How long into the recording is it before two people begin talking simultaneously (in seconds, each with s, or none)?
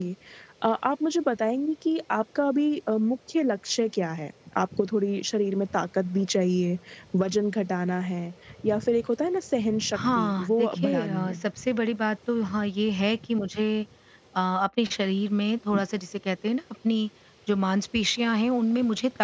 9.9 s